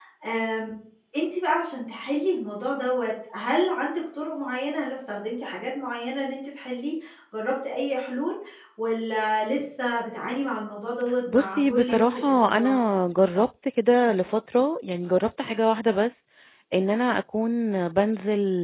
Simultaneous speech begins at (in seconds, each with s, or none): 11.3 s